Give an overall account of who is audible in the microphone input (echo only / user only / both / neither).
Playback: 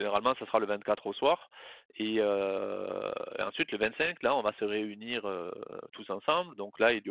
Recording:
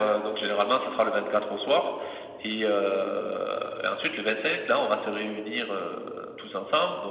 echo only